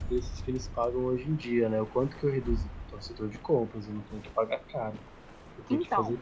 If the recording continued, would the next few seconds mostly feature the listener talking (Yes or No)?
No